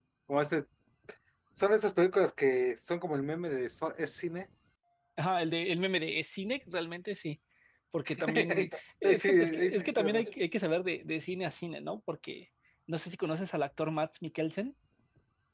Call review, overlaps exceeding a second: present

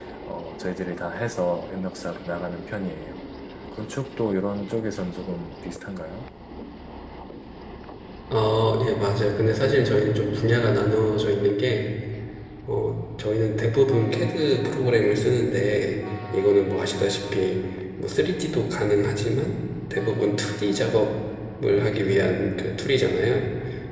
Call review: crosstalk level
none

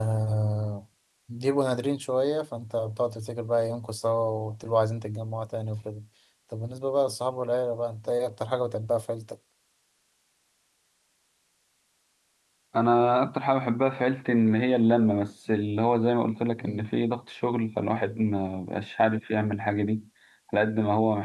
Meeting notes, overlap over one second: none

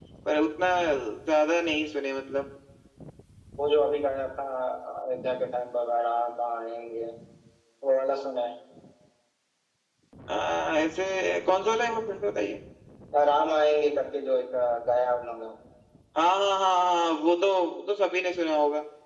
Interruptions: none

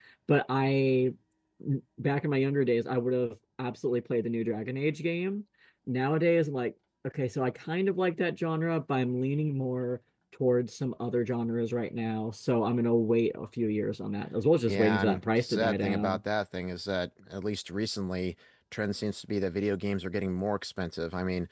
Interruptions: present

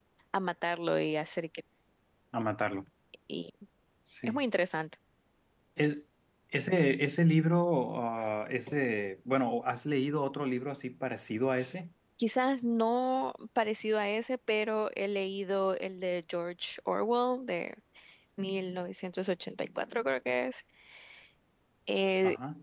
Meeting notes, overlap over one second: none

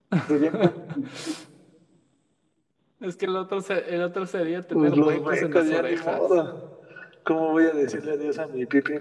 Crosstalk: present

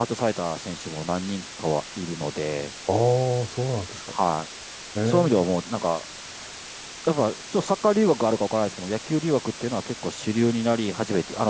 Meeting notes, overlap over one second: none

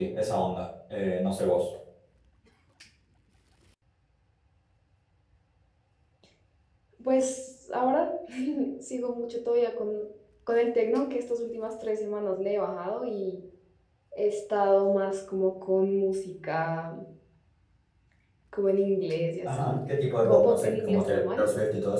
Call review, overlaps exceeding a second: present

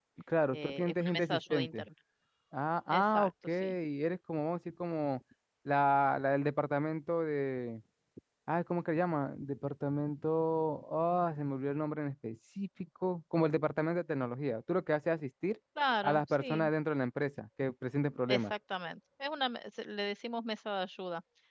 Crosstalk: present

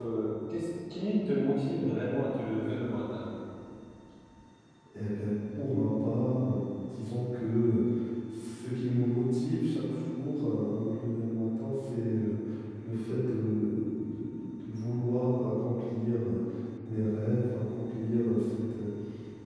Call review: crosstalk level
none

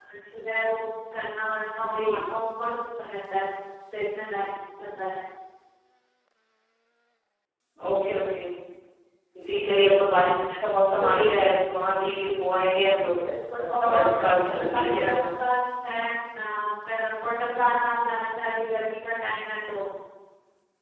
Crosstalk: present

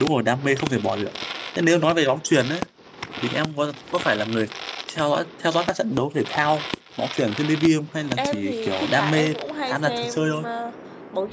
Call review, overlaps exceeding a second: present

